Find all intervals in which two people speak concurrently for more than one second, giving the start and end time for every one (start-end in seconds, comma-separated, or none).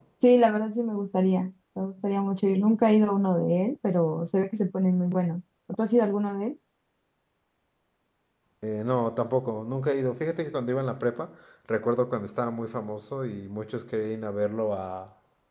none